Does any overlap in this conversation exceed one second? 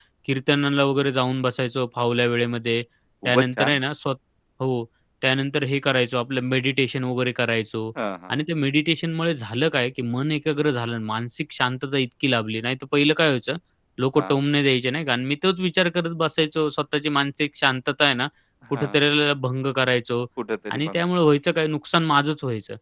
No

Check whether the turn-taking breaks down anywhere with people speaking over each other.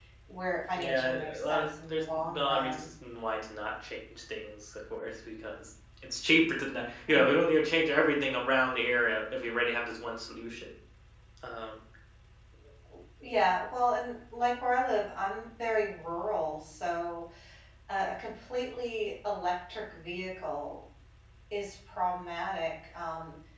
Yes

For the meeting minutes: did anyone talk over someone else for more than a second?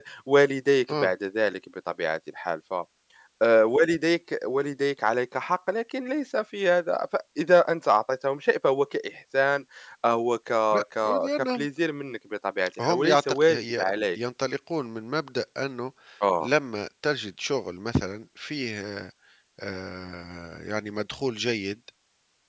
Yes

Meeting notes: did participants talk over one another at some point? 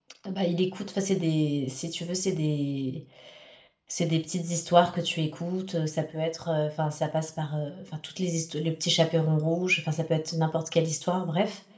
No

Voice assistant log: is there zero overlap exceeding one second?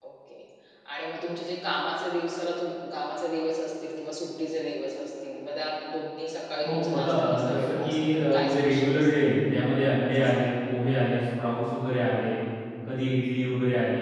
No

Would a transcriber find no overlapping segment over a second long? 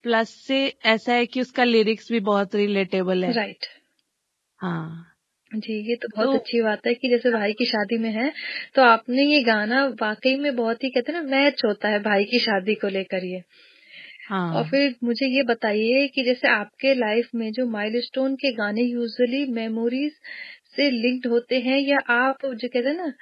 Yes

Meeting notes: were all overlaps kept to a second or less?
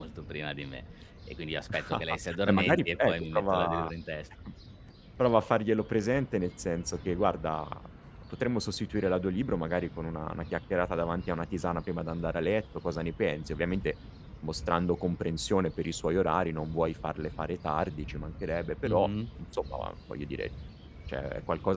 No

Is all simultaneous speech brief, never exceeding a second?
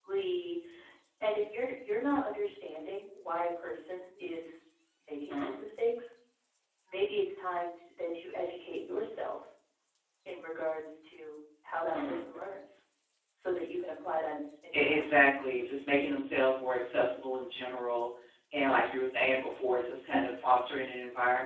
Yes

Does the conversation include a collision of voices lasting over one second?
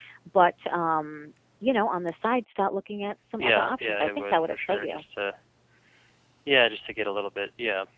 Yes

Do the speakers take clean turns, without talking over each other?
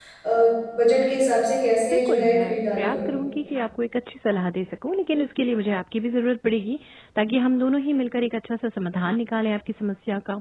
No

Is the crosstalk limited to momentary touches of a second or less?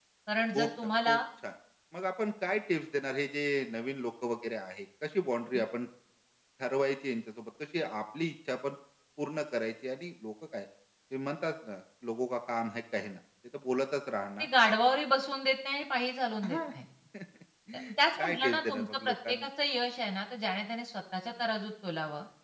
No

